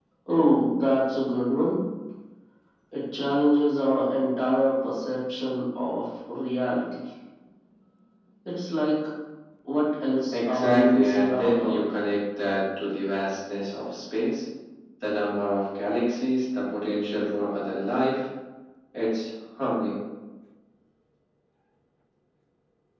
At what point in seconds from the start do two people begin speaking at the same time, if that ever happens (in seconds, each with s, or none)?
10.3 s